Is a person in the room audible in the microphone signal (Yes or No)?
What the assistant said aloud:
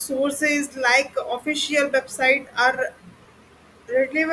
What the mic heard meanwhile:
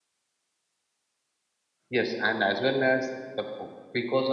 Yes